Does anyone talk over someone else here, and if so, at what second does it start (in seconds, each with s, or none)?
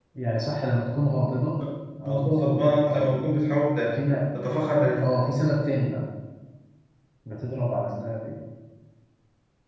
2.0 s